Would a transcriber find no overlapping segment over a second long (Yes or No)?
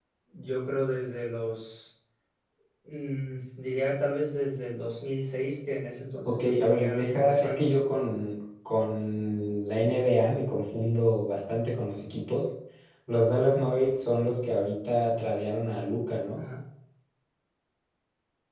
No